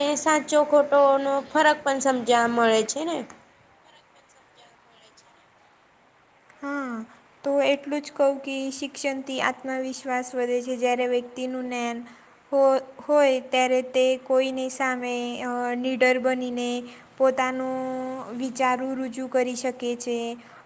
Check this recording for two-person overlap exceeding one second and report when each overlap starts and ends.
none

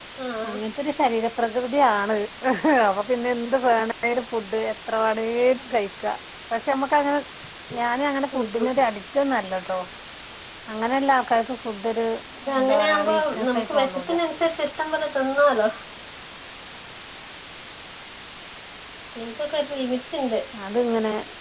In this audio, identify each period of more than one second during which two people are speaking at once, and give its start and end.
12.6-14.1

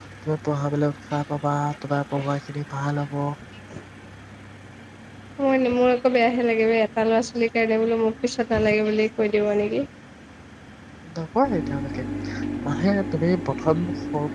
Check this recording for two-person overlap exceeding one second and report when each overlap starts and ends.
none

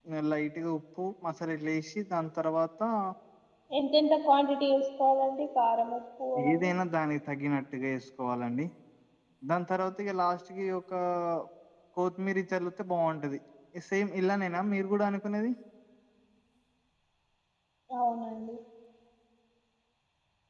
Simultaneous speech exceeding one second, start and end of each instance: none

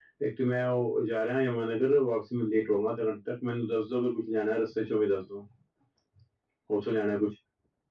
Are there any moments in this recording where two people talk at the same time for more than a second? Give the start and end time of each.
none

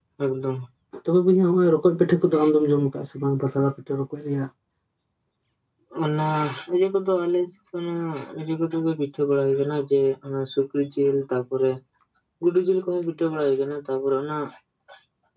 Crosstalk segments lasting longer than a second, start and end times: none

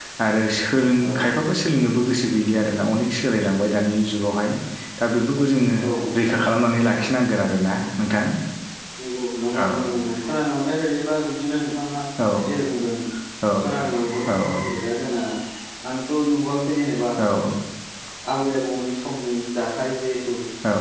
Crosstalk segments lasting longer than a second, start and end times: none

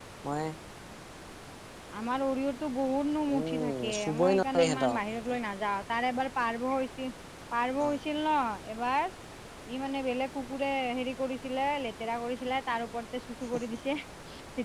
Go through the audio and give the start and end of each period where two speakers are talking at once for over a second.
3.3-5.4

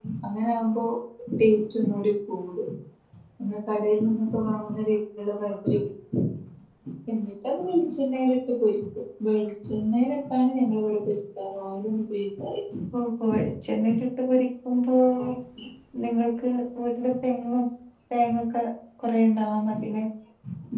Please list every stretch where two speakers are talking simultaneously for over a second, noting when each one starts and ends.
none

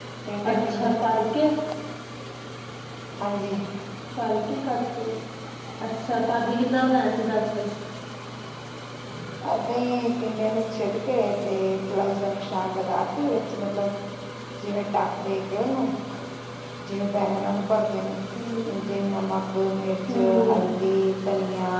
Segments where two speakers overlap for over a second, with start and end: none

